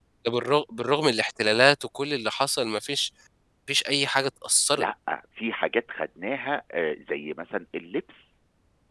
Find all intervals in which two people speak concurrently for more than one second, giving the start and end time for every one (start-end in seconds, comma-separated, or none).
none